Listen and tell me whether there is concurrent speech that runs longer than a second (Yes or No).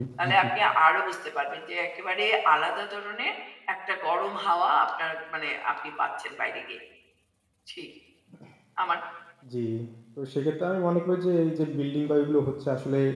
No